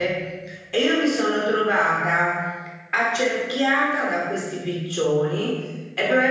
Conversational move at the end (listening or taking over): listening